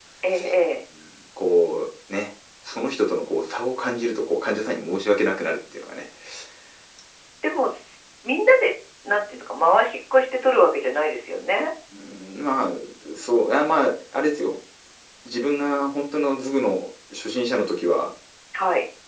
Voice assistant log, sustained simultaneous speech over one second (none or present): none